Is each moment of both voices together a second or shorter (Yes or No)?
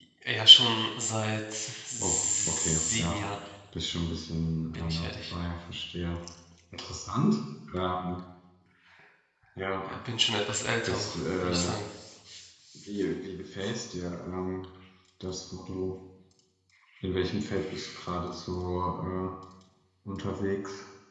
No